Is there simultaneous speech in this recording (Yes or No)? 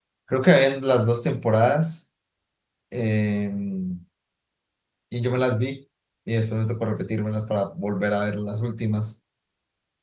No